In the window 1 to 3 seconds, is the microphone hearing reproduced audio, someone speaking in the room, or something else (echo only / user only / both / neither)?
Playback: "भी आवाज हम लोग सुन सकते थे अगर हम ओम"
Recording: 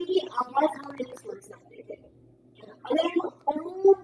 echo only